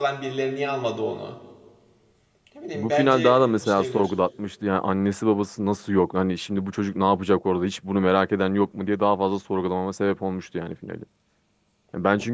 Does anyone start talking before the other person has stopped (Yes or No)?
Yes